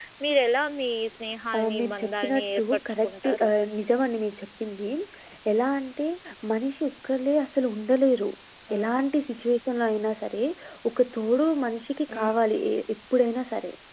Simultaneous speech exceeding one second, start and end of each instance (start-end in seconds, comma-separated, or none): 1.5-3.5